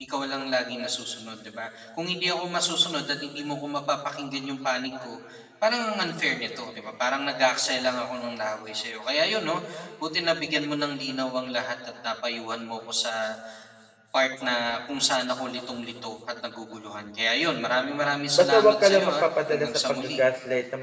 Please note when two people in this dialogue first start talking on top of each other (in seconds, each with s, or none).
18.4 s